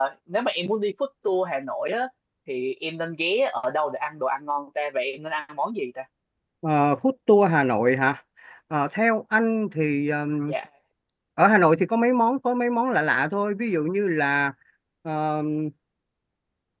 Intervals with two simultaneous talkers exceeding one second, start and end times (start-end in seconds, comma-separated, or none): none